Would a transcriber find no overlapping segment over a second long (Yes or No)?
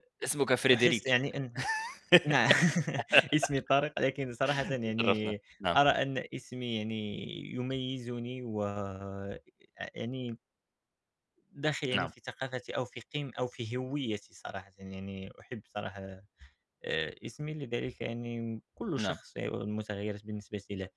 Yes